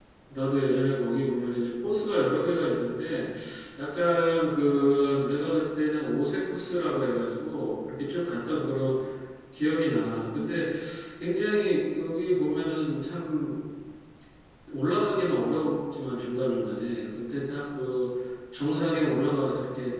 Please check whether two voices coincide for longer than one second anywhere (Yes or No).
No